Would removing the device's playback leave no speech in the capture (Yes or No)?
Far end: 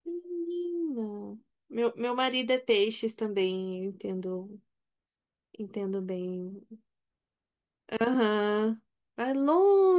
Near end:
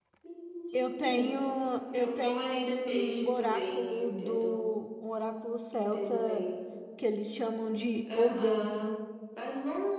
No